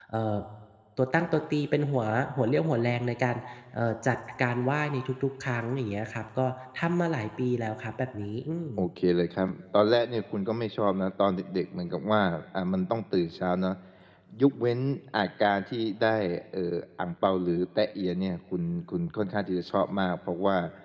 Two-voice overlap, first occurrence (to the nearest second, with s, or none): none